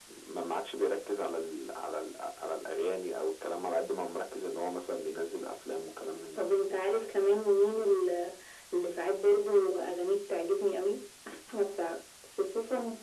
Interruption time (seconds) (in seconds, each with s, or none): none